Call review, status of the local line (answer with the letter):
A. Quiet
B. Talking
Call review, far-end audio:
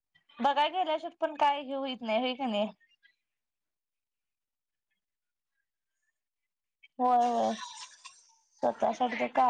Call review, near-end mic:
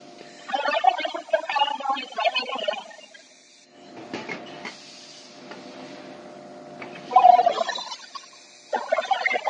A